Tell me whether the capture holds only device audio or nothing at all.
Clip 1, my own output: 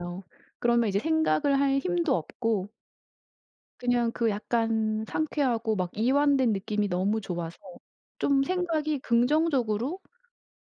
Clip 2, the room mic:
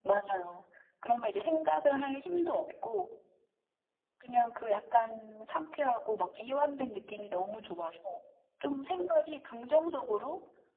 Yes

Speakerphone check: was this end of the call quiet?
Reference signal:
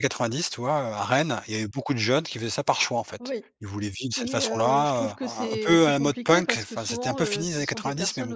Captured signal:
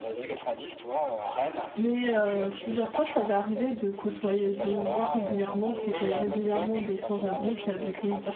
No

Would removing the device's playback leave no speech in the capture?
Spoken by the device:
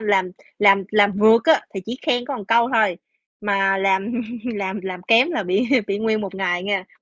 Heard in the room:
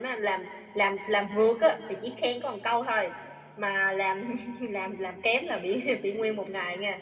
Yes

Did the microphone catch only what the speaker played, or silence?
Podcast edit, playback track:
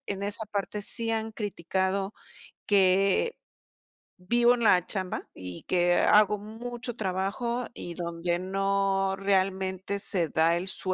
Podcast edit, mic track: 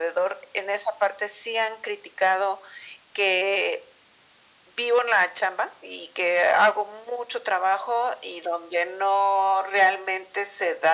Yes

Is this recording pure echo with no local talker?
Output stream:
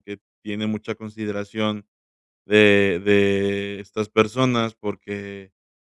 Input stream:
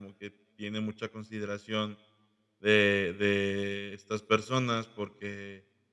Yes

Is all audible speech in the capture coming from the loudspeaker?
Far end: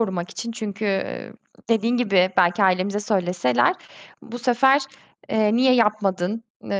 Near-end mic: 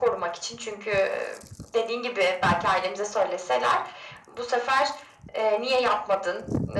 Yes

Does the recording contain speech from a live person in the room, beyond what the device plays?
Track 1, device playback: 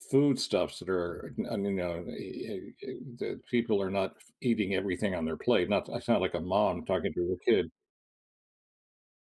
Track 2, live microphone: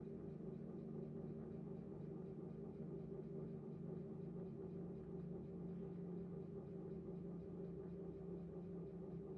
No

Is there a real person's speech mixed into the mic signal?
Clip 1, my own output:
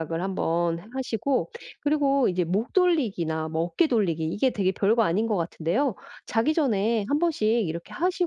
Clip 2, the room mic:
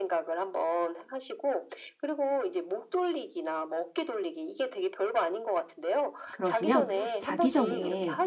Yes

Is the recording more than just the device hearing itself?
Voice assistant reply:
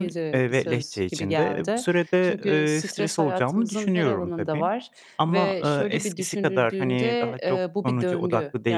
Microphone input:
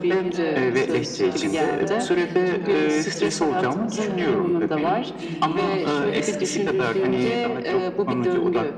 Yes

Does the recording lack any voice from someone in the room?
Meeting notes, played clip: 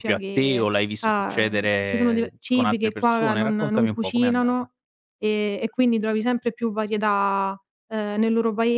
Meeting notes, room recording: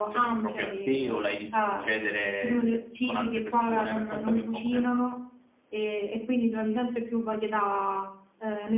Yes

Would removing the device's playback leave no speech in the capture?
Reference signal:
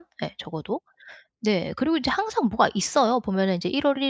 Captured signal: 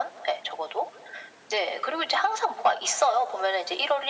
Yes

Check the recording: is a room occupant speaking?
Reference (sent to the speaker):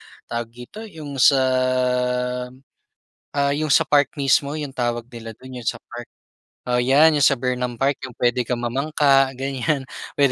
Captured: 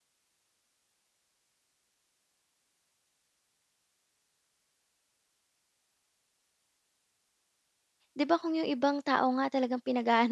Yes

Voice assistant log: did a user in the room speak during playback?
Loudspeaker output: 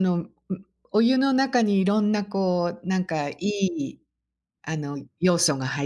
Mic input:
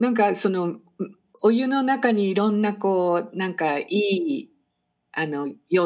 No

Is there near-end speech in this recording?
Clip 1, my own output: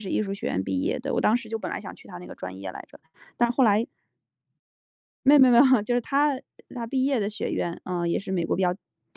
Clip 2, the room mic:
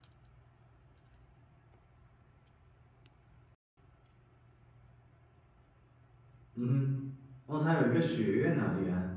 Yes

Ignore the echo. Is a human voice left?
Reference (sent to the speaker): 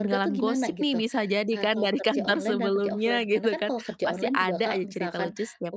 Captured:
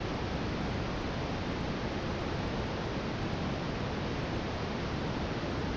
No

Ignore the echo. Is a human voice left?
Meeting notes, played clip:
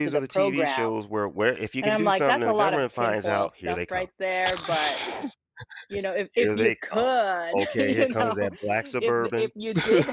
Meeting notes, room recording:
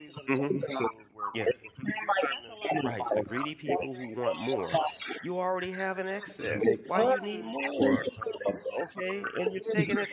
Yes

